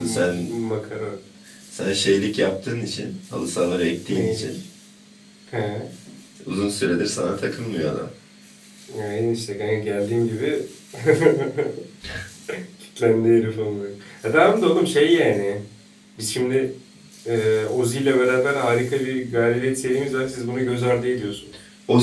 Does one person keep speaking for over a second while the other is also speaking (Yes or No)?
No